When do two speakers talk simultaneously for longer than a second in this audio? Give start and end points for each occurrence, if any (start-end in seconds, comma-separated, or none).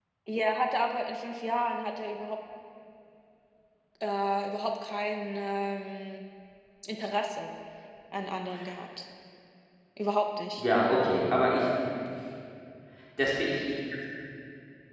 none